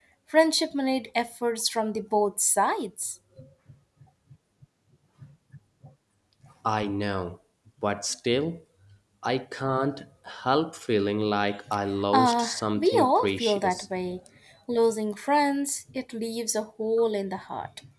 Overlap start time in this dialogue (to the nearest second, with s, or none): 12 s